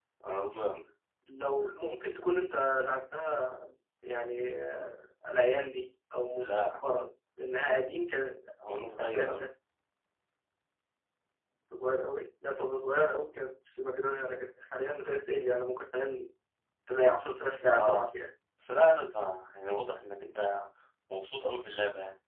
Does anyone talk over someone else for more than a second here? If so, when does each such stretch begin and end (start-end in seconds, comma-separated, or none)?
none